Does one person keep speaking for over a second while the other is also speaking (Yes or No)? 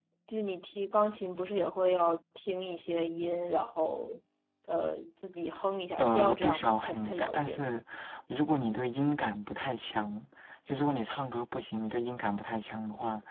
Yes